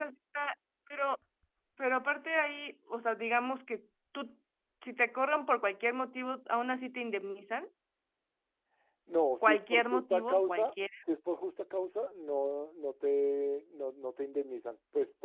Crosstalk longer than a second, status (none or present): present